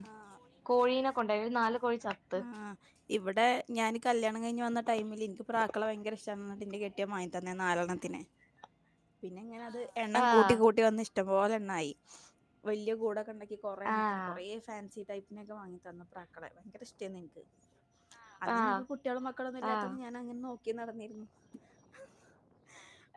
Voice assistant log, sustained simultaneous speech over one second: none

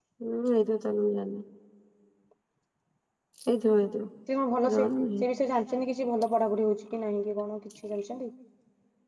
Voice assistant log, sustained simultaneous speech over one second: none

